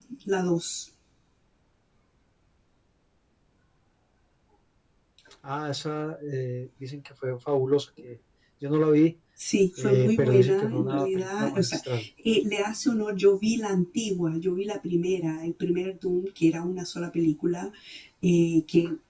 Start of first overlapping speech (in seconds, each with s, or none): 9.8 s